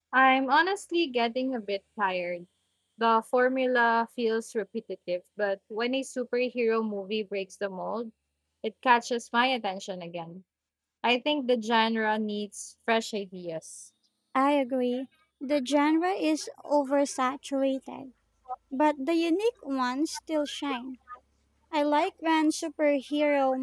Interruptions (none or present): none